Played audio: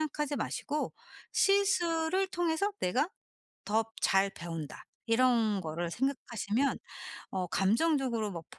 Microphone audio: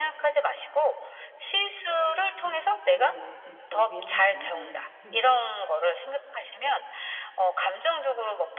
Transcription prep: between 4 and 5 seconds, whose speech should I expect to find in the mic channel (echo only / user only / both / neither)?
both